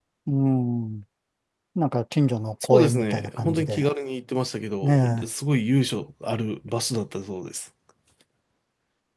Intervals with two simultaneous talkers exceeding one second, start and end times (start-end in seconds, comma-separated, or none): 2.6-3.9